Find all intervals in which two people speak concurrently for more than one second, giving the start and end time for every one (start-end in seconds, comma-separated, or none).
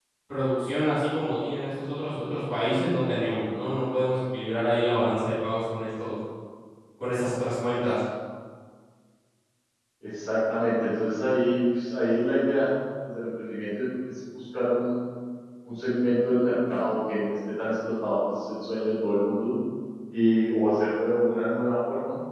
none